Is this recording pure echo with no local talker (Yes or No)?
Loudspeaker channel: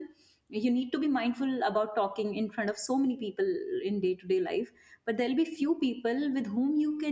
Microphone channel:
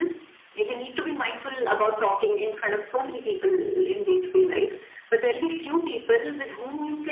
Yes